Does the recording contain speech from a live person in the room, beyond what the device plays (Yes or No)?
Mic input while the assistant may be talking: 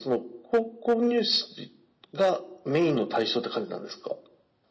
No